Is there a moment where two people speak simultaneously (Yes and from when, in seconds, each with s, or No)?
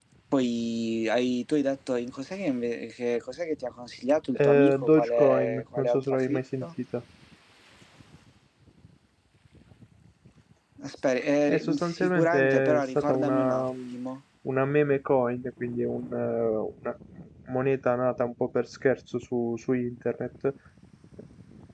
Yes, from 4.3 s